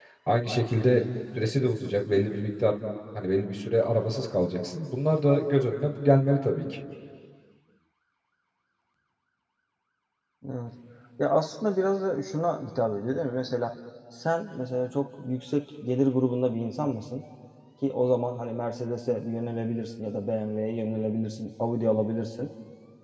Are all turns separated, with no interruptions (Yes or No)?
Yes